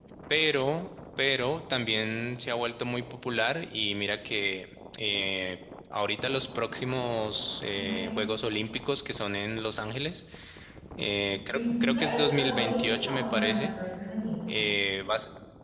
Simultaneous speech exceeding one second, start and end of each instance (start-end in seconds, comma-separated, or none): 11.5-13.7